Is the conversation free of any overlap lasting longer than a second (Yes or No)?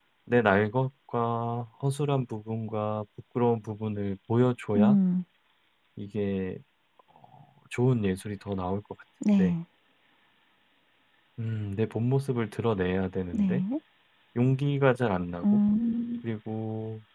Yes